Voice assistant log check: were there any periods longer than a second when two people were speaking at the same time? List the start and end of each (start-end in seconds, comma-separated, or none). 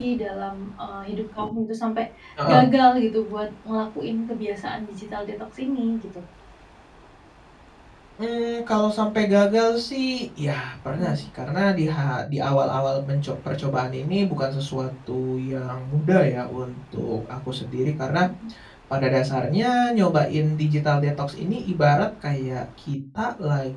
none